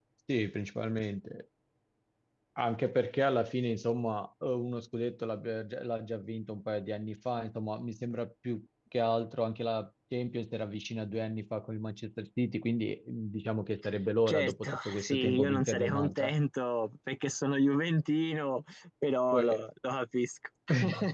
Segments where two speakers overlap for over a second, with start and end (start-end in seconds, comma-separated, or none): 14.3-16.3